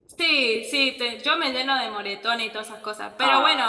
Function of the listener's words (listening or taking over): listening